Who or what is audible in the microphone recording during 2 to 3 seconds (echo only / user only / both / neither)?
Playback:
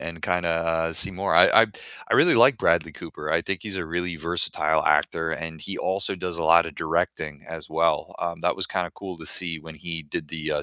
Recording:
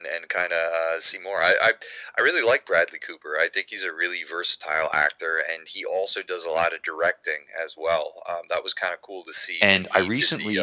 echo only